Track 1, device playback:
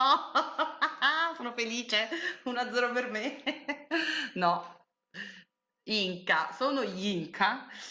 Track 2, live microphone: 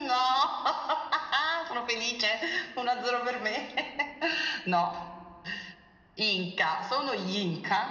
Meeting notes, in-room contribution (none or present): none